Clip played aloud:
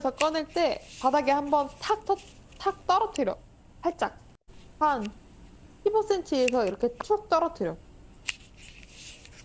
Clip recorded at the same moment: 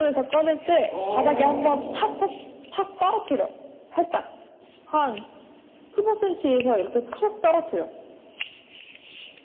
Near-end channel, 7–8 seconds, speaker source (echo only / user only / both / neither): echo only